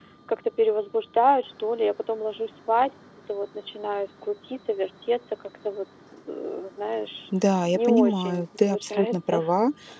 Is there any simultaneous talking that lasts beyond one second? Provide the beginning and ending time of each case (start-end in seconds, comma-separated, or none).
7.7-9.5